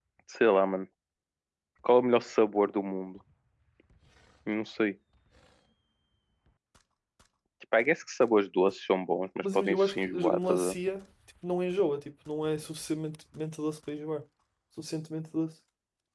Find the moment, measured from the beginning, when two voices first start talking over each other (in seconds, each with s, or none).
9.4 s